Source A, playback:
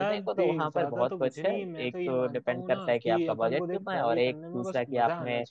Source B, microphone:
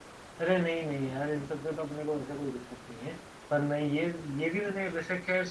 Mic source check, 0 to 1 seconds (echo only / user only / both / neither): user only